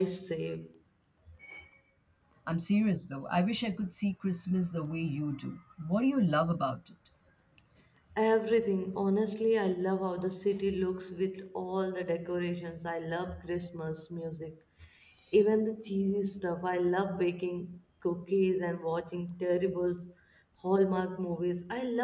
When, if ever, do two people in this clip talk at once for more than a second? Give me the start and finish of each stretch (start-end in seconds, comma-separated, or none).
none